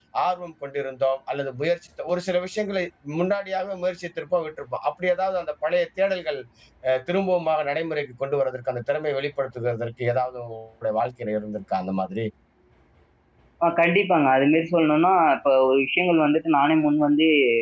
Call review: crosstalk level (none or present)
none